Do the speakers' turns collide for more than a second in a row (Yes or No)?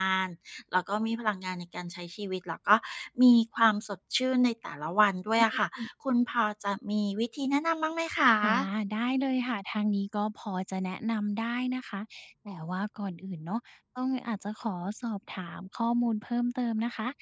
No